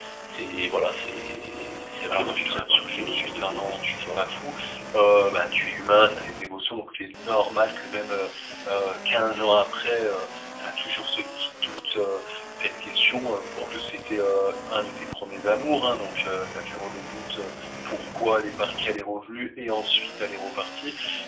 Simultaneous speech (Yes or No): Yes